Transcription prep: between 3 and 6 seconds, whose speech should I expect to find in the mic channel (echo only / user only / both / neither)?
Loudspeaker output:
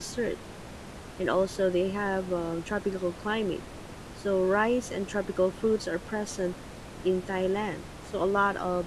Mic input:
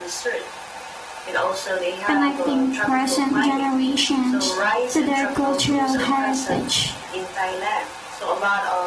both